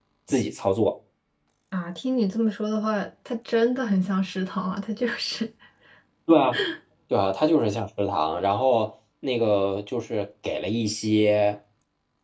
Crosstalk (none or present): none